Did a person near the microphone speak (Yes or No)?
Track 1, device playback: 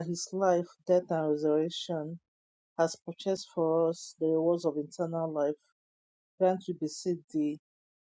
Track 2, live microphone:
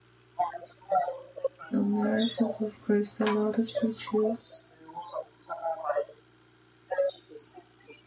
Yes